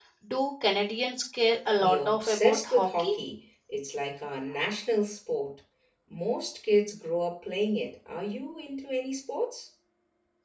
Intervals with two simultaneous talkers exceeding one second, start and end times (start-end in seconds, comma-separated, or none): 1.8-3.1